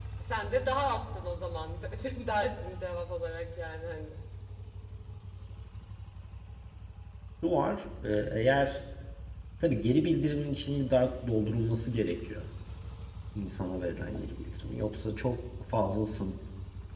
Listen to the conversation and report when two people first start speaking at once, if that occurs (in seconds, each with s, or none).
none